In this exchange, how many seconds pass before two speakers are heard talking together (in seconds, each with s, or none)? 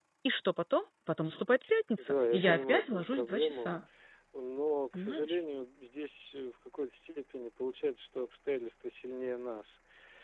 2.0 s